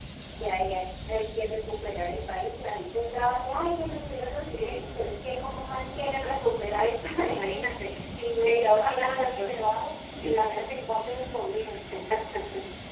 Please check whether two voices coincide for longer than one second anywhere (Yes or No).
Yes